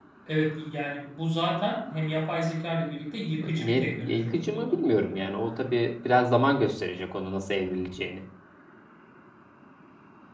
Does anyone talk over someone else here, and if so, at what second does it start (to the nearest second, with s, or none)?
3 s